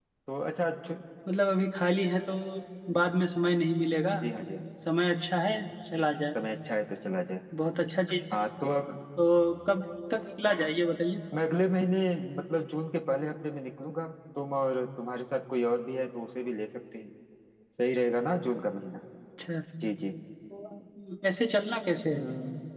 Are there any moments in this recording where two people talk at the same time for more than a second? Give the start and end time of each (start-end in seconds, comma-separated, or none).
none